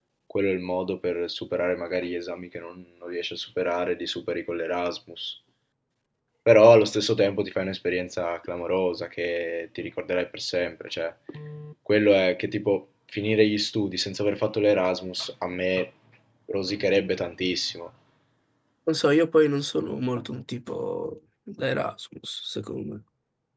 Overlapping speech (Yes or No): No